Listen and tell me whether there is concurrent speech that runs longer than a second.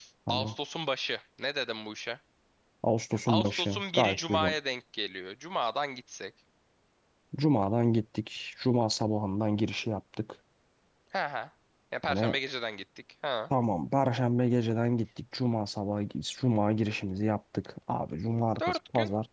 Yes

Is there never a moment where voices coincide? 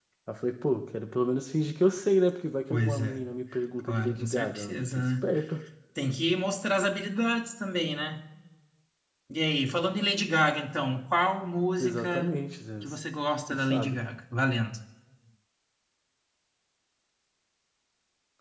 No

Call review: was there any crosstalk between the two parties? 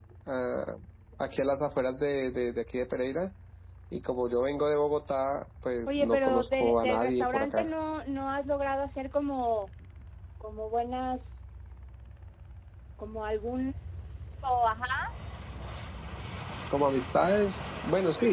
Yes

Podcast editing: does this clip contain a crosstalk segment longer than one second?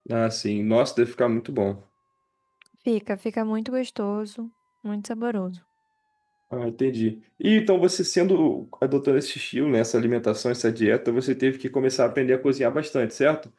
No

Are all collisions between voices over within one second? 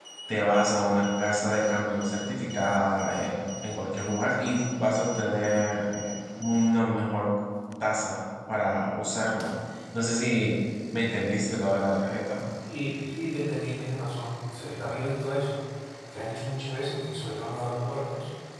Yes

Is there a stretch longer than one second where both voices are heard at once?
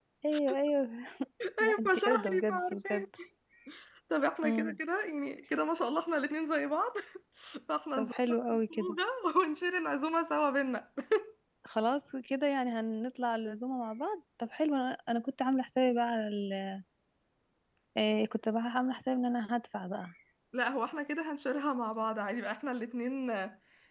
Yes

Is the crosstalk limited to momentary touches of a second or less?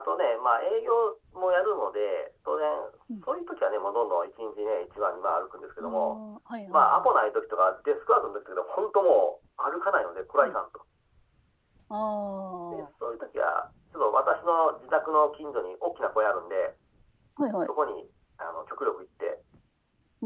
Yes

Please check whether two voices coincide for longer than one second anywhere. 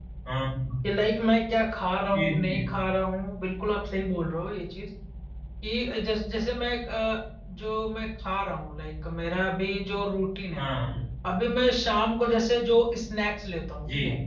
No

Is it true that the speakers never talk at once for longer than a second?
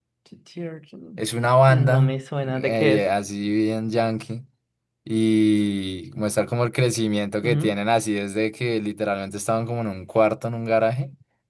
No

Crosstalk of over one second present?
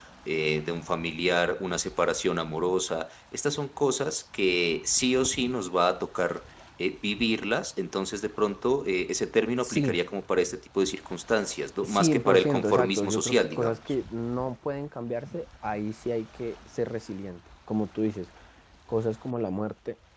Yes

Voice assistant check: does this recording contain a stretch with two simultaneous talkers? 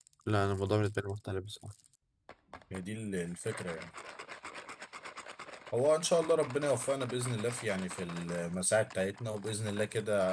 No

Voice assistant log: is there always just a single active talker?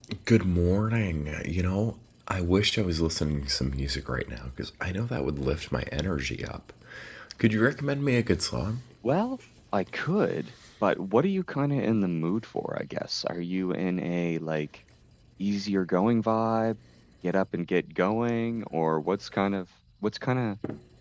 Yes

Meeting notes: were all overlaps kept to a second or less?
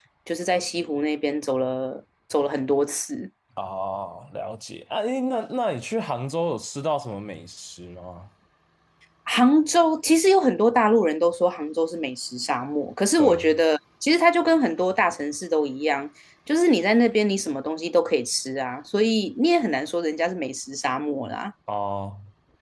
Yes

